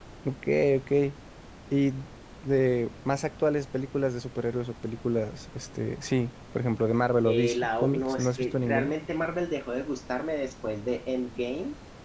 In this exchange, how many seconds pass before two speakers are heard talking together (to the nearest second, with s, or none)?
7 s